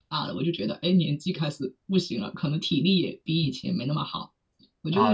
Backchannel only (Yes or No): No